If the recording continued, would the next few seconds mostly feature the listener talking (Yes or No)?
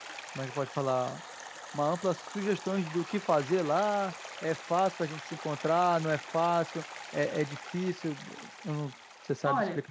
Yes